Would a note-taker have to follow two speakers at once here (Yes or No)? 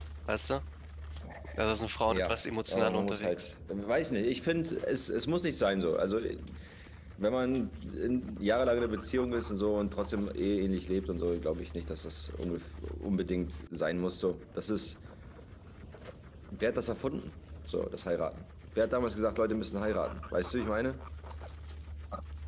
Yes